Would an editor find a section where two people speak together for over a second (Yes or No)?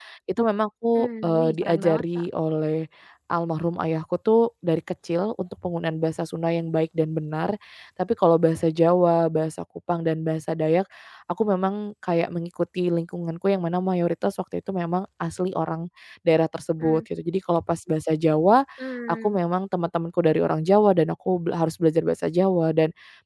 Yes